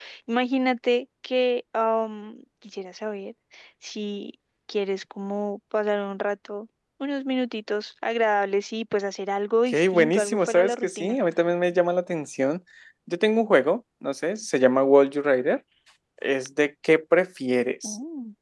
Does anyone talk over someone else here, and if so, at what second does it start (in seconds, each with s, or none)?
9.7 s